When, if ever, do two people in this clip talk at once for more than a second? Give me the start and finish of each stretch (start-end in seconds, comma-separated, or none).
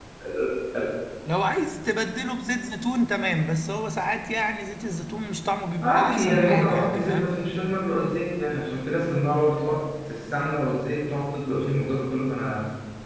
5.8-7.3